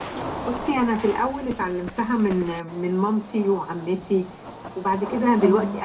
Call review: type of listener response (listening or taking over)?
listening